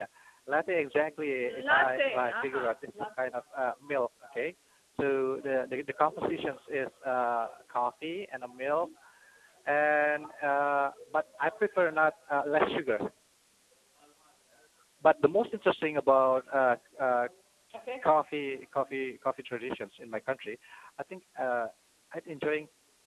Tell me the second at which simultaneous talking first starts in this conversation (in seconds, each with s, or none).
1.7 s